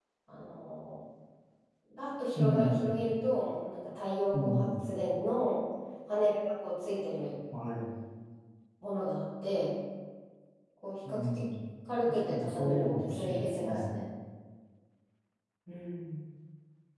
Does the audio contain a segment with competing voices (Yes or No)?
Yes